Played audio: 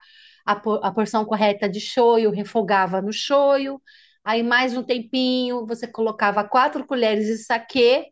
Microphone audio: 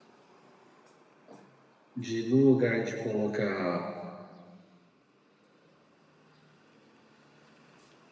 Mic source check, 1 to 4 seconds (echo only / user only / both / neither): user only